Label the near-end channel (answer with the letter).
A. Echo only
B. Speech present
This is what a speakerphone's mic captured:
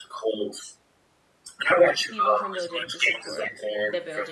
B